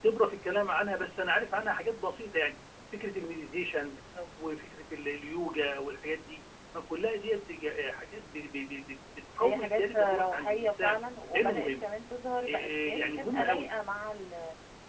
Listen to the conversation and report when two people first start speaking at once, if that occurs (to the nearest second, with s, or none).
9 s